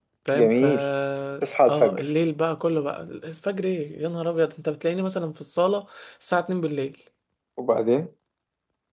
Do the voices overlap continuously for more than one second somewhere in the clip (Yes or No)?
No